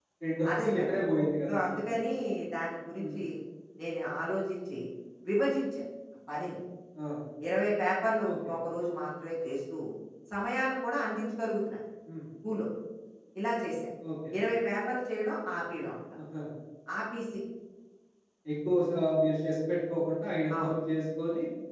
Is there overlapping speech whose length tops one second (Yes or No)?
No